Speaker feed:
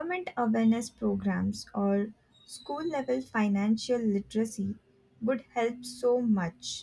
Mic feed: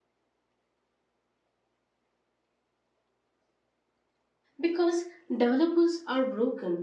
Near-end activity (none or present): present